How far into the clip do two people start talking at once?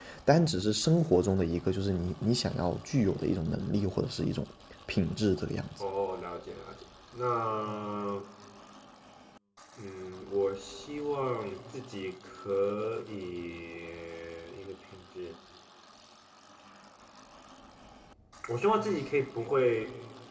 none

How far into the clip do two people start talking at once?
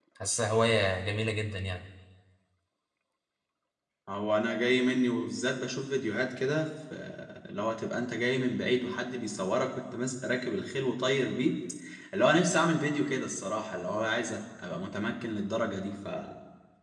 none

